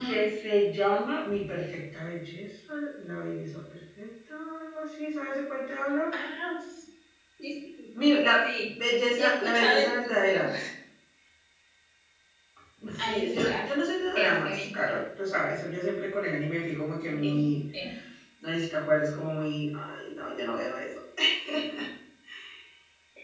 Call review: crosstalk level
present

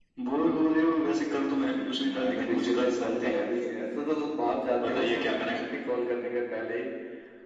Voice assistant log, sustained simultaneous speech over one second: present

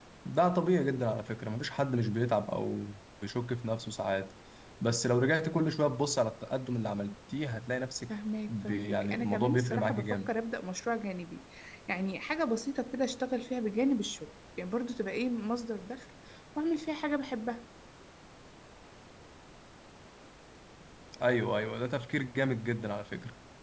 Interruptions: present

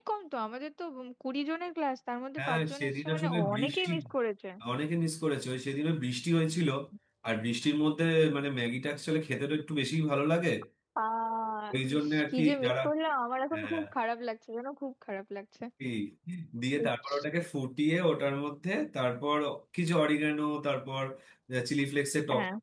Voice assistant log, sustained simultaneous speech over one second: present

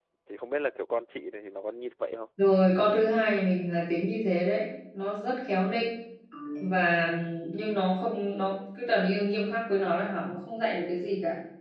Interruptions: none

